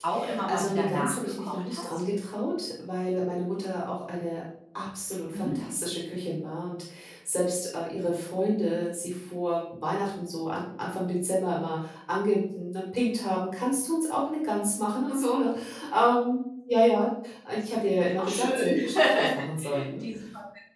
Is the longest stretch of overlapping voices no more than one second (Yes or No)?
No